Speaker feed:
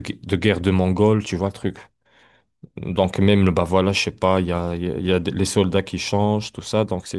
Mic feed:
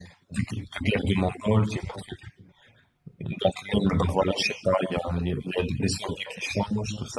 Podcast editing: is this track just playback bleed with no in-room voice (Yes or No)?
Yes